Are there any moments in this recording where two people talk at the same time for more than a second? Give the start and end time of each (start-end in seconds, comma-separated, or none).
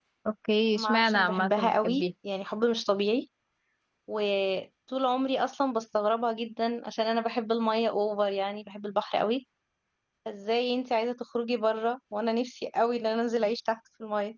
0.8-2.0